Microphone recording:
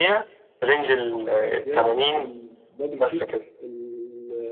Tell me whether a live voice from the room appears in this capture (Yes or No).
Yes